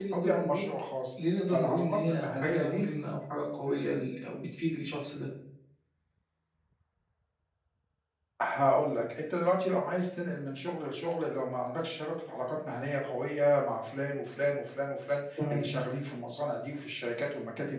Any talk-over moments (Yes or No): Yes